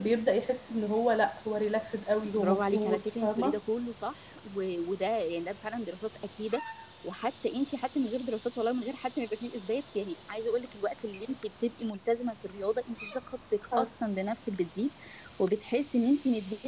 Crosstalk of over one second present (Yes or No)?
Yes